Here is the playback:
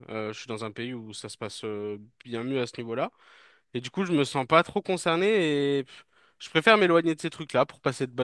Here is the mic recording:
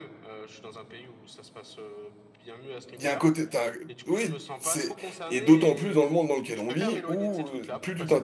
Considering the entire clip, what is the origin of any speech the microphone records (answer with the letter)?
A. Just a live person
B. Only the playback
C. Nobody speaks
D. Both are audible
D